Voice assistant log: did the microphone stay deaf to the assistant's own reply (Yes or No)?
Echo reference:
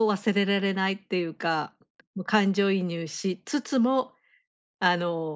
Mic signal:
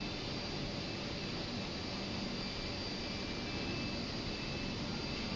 Yes